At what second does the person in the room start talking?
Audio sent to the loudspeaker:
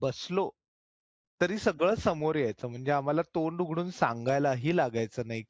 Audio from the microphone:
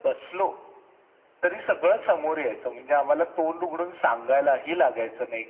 none

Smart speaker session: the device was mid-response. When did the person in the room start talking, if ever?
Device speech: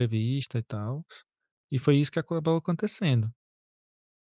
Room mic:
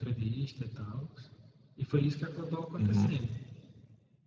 2.8 s

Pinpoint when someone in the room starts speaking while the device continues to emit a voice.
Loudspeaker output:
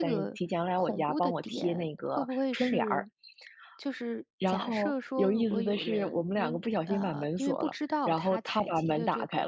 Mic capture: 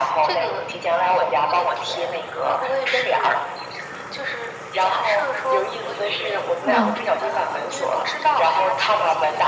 6.6 s

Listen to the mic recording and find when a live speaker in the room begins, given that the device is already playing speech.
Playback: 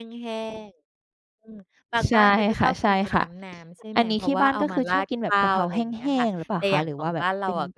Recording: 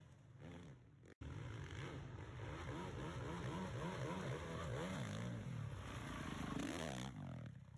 none

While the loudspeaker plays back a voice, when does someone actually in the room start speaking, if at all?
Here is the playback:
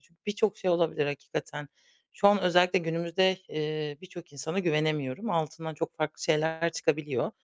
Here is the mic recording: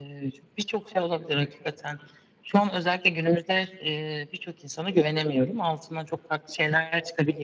none

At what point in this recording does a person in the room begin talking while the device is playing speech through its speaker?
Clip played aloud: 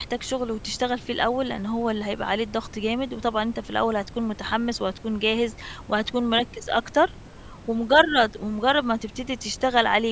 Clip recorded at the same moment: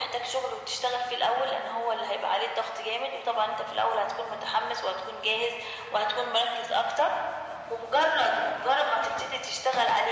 none

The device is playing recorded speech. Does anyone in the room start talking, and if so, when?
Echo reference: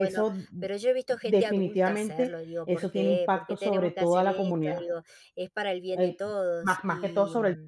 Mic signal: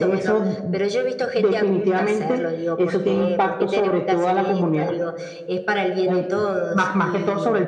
none

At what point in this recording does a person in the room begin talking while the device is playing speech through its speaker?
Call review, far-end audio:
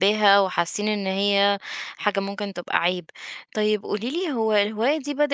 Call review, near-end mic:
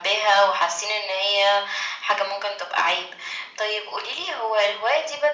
none

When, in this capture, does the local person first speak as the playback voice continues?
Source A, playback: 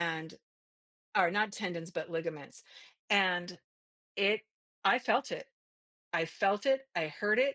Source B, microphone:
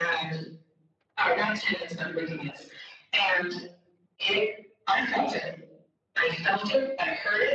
none

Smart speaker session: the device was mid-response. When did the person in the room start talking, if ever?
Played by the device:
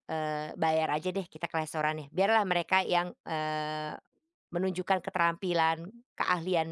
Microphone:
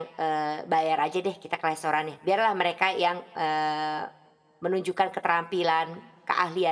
none

